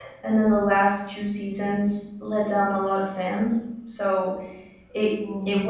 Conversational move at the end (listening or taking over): listening